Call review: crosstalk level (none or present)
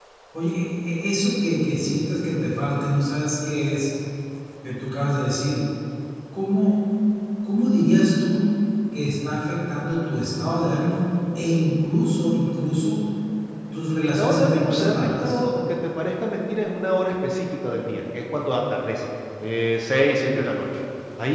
present